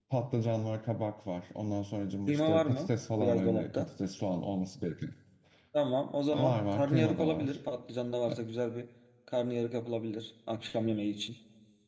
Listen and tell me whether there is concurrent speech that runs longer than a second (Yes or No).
Yes